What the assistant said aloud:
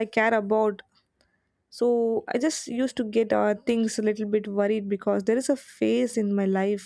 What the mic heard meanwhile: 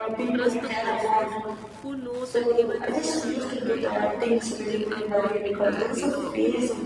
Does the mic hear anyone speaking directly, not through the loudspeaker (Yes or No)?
Yes